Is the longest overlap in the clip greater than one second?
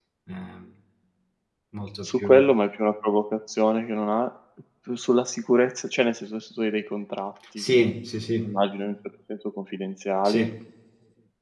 No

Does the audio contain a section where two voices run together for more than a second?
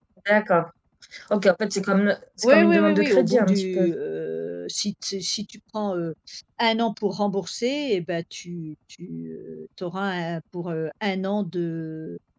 Yes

